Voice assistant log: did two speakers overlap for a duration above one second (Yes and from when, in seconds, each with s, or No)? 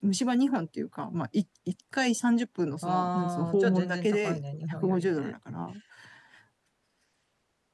Yes, from 2.8 s